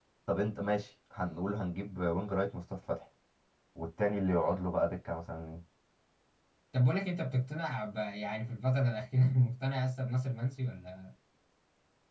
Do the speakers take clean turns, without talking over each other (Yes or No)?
Yes